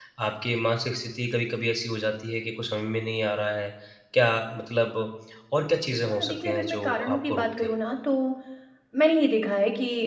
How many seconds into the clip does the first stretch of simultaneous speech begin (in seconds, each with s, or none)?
6.1 s